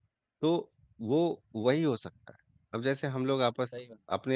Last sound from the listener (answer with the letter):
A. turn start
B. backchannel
B